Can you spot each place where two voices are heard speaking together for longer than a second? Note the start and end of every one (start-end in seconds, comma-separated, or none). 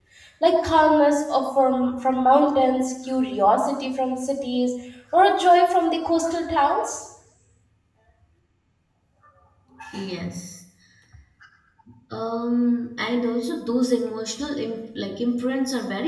none